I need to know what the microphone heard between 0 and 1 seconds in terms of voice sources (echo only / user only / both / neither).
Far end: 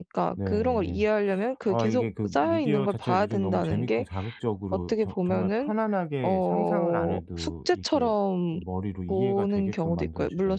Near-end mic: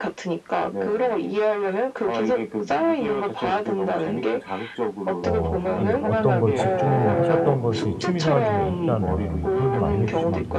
echo only